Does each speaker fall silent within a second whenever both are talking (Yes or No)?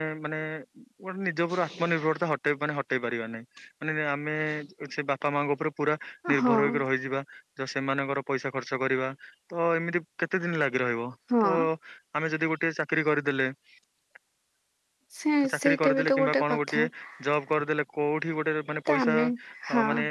No